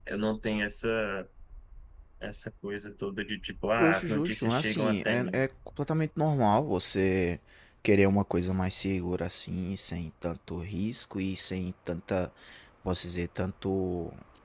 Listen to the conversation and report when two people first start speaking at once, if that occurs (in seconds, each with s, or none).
3.8 s